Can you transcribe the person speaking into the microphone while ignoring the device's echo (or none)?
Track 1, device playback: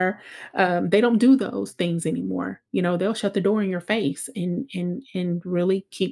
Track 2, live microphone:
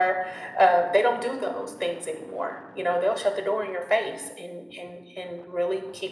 none